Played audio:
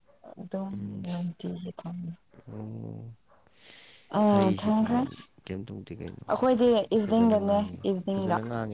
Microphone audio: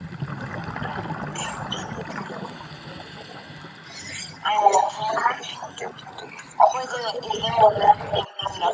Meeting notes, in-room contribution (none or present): none